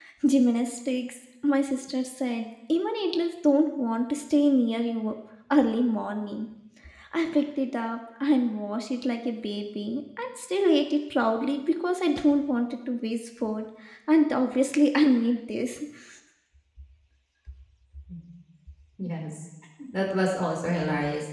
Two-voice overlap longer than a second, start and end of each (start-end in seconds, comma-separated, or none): none